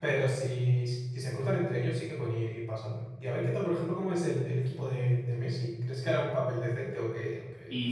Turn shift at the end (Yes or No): Yes